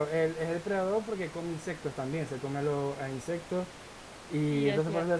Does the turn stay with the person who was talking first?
No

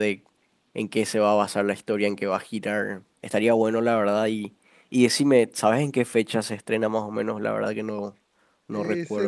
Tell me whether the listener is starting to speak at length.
Yes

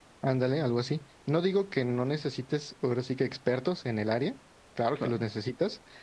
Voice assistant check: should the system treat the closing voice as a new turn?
No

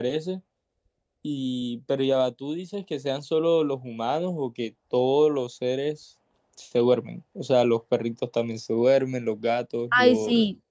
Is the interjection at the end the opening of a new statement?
Yes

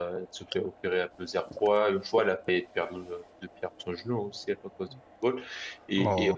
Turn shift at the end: No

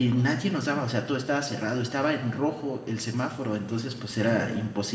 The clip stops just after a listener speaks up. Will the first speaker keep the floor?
Yes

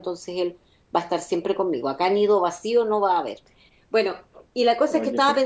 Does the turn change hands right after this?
No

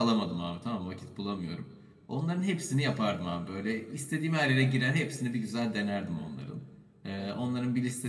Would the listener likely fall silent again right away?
Yes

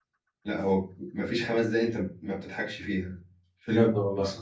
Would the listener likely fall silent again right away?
Yes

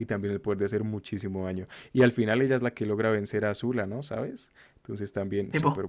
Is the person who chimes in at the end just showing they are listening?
No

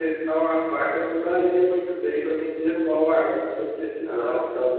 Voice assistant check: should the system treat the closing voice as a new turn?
No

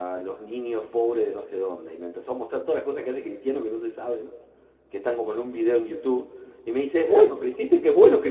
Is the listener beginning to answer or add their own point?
No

